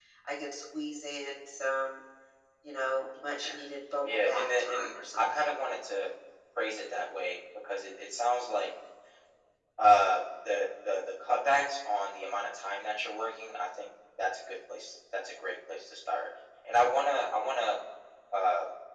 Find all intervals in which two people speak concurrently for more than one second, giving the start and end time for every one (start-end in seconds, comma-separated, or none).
4.0-5.5